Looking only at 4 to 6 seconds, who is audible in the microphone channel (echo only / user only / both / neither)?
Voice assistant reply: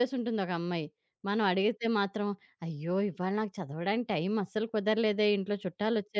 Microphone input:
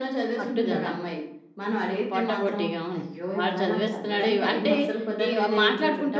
both